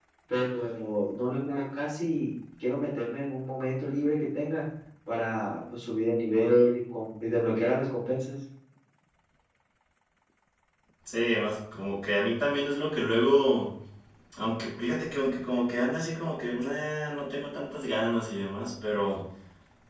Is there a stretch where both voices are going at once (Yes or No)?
No